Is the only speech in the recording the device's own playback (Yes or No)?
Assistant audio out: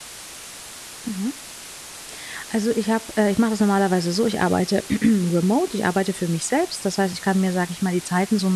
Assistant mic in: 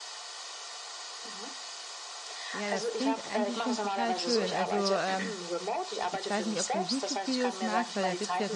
No